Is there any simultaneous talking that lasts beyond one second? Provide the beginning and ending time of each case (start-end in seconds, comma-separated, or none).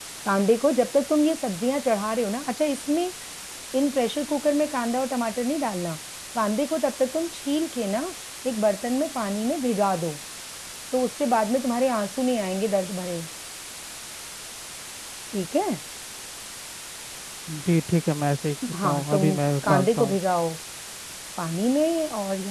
18.8-20.2